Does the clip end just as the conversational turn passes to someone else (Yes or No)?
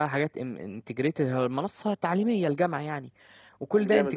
No